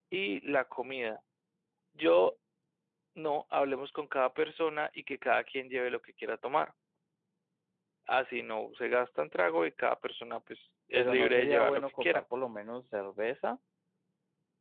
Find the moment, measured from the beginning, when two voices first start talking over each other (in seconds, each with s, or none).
11.0 s